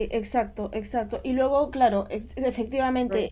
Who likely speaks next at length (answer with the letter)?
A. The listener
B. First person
B